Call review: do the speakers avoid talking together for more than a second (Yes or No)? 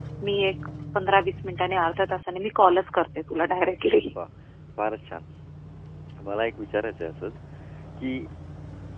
Yes